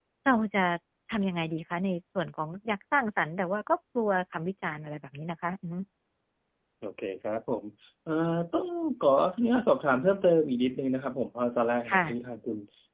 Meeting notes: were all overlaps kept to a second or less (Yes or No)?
Yes